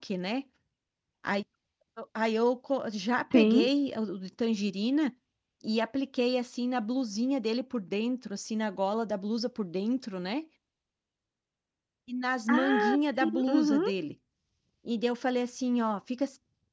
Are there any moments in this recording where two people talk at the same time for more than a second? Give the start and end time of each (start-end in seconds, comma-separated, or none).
12.5-13.8